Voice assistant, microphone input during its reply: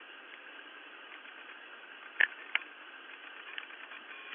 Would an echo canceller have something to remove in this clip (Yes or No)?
No